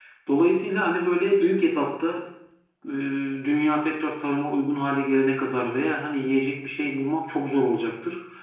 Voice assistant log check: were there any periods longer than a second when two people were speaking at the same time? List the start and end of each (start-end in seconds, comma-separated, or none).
none